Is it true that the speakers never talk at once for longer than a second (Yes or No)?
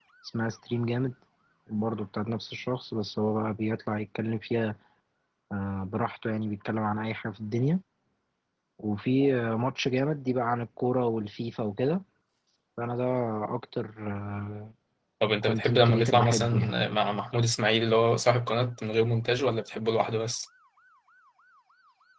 No